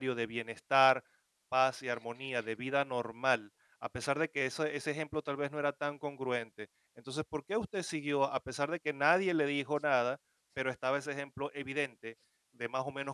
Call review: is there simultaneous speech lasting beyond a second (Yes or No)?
No